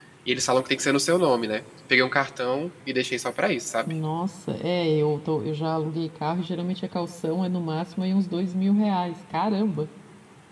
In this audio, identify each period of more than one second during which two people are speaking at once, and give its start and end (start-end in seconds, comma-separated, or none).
none